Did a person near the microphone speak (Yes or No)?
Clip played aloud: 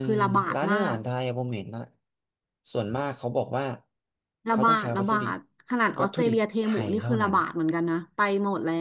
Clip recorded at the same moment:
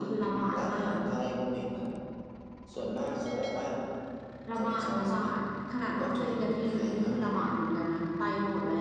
No